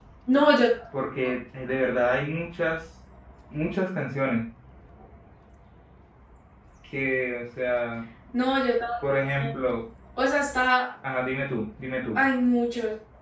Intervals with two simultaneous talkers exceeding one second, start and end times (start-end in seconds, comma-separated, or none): none